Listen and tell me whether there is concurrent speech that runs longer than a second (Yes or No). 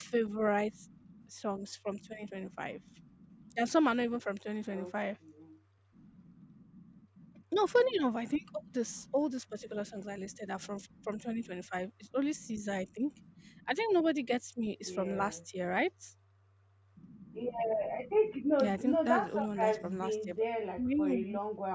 Yes